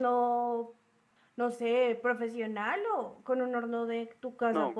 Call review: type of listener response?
taking over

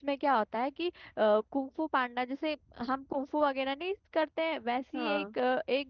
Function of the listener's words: listening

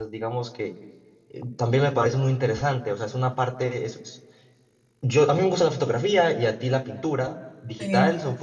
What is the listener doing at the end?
listening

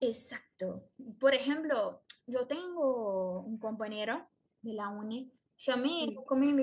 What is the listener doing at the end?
listening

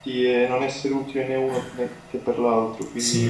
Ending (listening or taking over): taking over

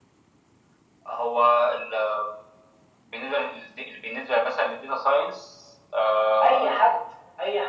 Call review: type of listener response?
taking over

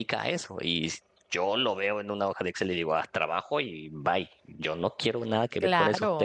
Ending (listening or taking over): listening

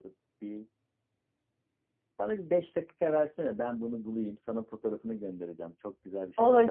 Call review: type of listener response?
taking over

